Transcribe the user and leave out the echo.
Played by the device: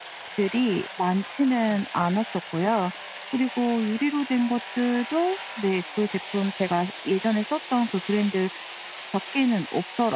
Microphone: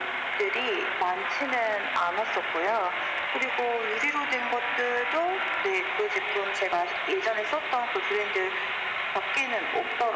none

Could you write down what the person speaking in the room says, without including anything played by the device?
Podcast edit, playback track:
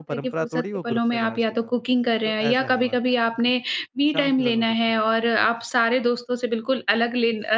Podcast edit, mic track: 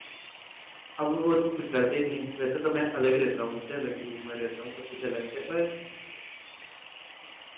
अब वो तो कुछ करते नहीं है। वैसे तो मैं अलग ही रहता हूँ। उनसे अलग ही रूम में रहता हूँ। सब कुछ अलग है। पर,

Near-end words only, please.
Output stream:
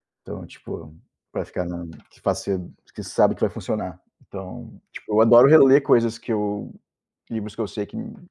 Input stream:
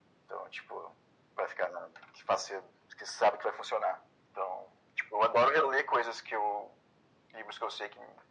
none

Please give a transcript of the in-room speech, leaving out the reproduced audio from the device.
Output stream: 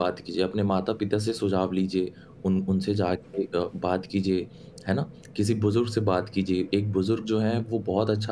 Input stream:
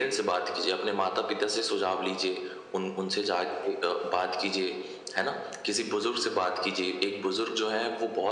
none

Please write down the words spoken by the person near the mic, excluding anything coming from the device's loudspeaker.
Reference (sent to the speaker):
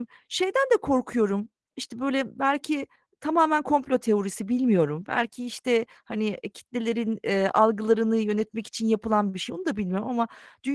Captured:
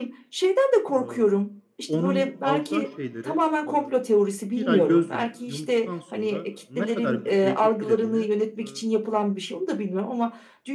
Aaa, onun alacağı şeylere, eee, 1 ay göz yum yumduktan sonra, ne kadar bütçeyi etkilediğini, eee,

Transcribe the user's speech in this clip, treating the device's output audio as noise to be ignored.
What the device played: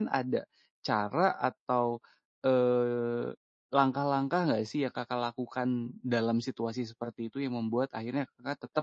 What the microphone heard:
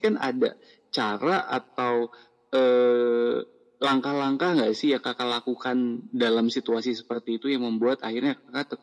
none

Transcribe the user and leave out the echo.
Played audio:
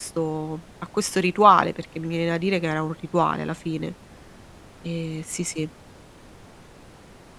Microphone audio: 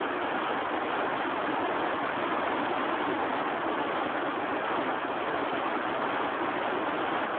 none

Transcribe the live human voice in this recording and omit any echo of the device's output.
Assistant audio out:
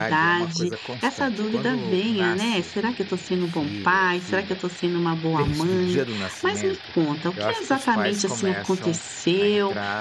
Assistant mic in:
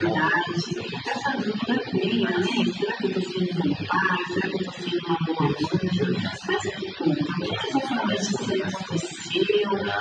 none

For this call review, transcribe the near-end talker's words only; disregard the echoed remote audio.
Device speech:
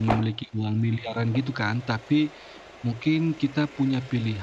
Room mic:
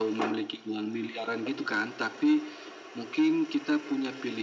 none

